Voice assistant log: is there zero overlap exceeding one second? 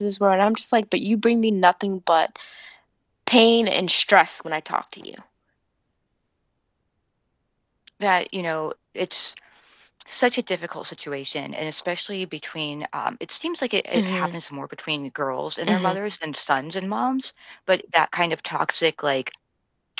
Yes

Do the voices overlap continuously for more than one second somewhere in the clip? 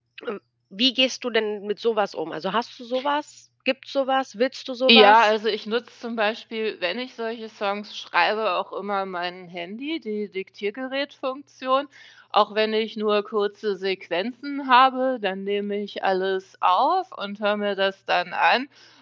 No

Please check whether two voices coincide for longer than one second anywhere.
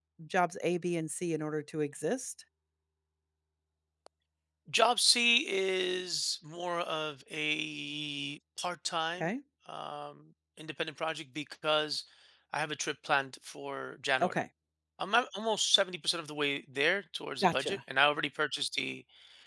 No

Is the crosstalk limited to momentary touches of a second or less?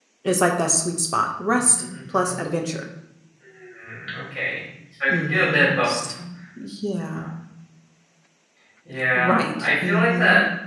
No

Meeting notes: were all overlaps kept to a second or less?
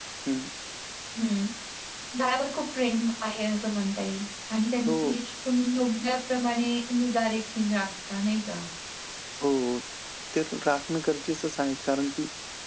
Yes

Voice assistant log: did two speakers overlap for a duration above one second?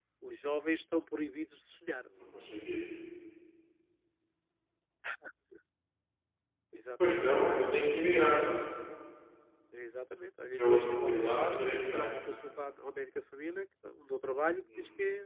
Yes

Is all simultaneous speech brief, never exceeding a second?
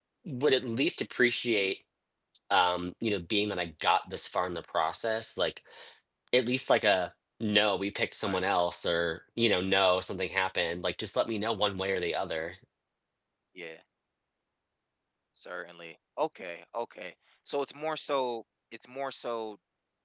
Yes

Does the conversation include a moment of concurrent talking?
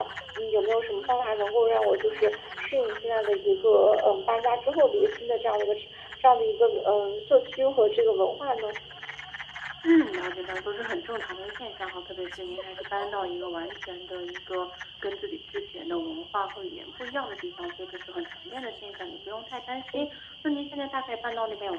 No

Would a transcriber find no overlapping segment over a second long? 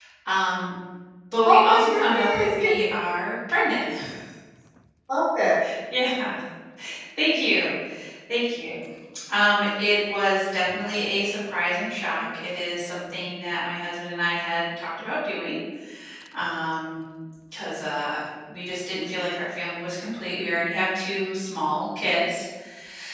No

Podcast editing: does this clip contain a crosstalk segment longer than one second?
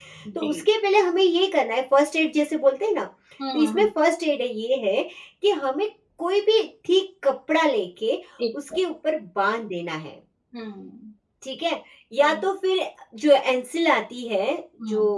No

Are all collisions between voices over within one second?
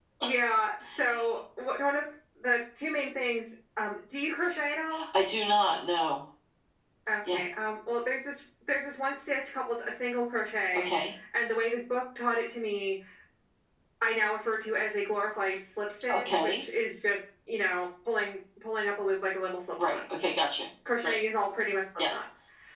Yes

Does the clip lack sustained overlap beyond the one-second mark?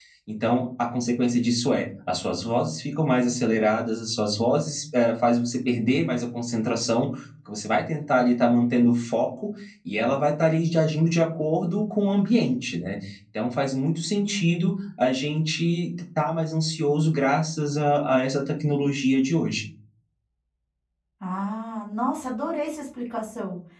Yes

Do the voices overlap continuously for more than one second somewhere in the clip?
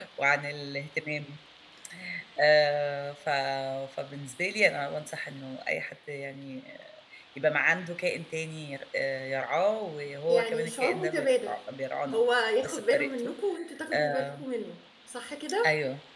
Yes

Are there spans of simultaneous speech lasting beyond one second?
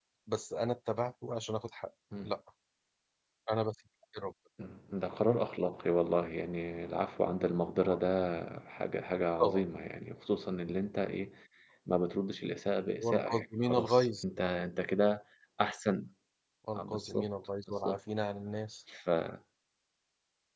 Yes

